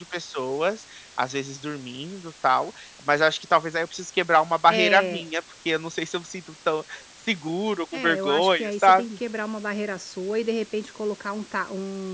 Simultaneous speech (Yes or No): Yes